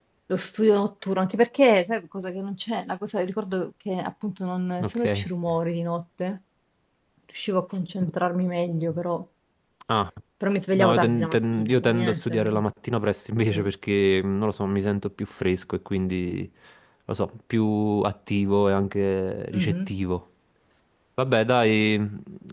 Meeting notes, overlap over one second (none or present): present